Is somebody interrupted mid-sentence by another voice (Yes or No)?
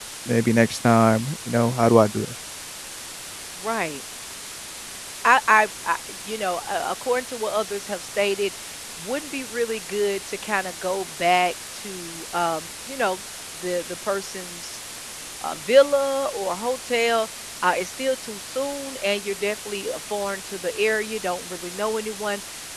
No